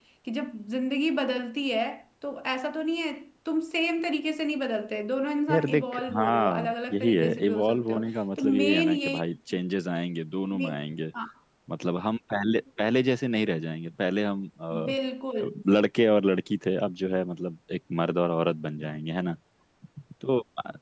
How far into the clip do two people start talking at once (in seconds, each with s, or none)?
5.5 s